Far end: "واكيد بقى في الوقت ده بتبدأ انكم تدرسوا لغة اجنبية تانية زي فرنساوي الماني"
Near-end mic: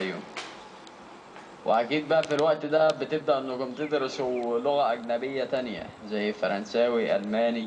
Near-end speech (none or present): none